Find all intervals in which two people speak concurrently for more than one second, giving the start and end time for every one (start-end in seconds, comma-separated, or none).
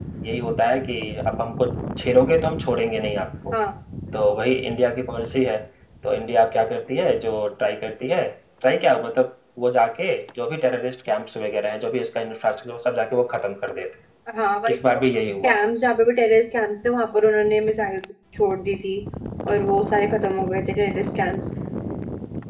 none